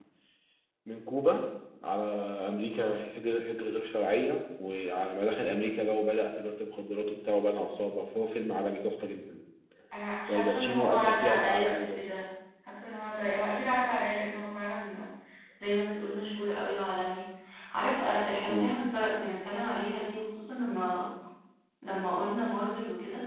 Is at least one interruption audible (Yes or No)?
Yes